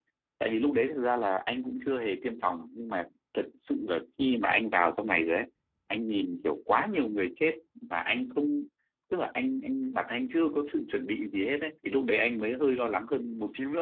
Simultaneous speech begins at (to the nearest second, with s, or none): none